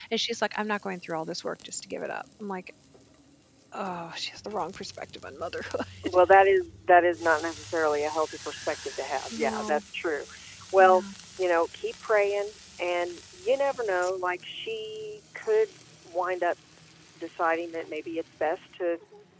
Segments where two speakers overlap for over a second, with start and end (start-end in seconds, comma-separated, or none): none